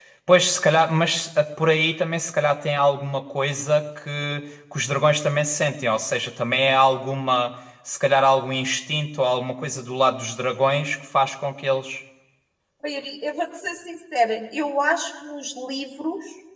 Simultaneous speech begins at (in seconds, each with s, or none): none